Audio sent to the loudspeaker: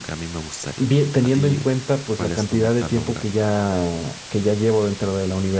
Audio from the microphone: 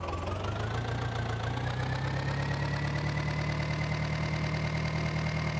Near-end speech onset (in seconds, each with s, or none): none